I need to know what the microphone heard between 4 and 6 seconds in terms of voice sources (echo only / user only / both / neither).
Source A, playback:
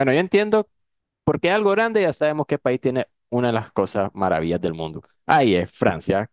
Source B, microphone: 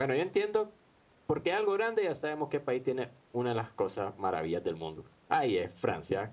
echo only